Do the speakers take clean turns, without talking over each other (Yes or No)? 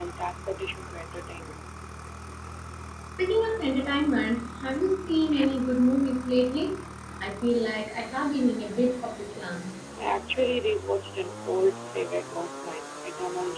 Yes